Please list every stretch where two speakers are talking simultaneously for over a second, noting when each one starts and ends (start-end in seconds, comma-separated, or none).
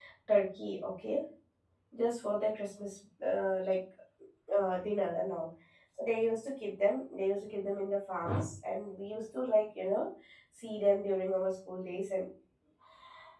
none